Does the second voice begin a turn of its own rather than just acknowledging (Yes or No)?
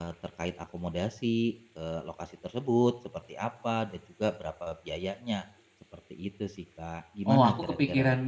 Yes